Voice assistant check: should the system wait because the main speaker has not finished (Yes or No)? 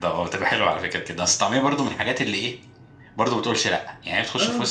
Yes